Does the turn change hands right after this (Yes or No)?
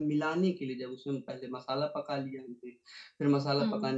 No